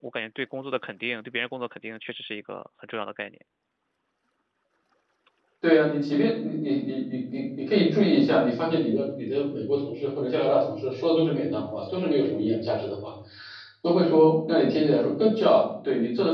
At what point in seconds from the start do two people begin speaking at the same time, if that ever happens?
none

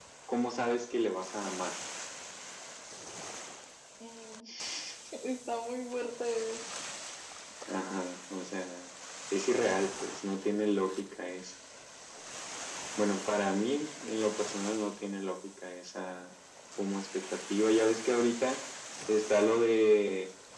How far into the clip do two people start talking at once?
none

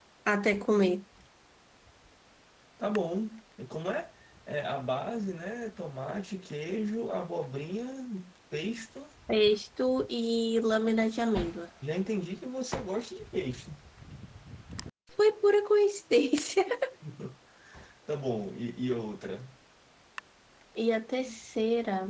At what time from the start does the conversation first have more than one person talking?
none

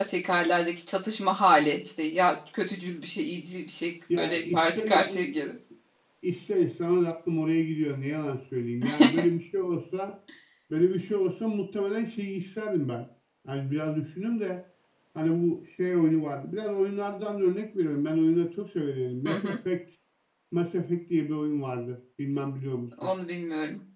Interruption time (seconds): 4.1 s

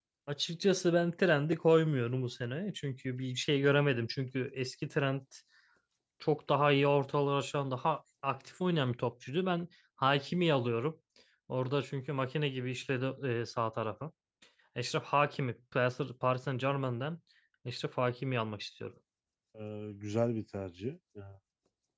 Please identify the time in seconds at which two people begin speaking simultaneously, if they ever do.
none

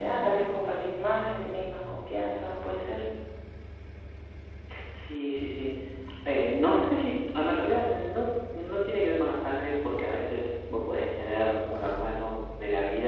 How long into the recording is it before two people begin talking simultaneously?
none

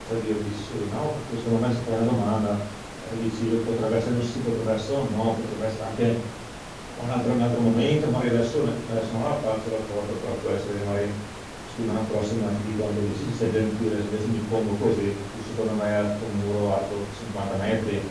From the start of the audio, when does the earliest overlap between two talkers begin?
none

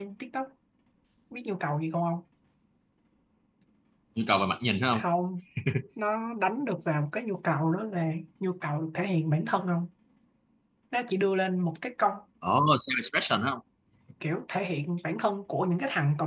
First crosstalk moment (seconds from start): none

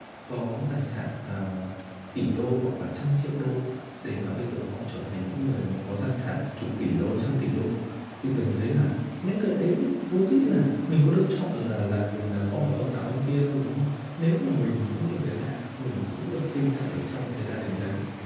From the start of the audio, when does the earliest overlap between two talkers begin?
none

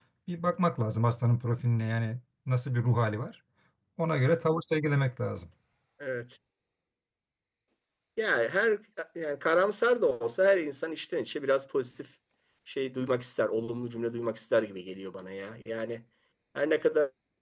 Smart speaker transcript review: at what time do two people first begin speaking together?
none

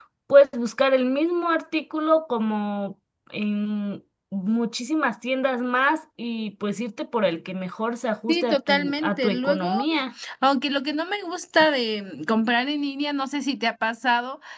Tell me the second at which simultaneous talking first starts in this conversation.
8.3 s

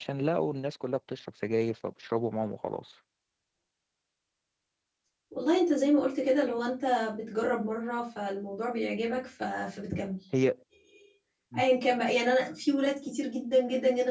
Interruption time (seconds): none

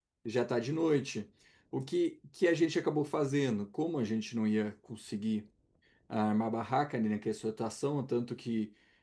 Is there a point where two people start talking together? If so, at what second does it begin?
none

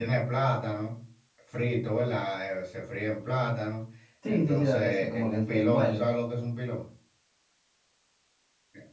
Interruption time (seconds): 4.3 s

